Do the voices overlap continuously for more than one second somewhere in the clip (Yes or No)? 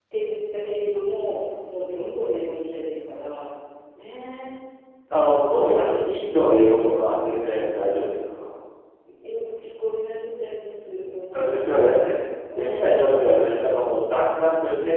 Yes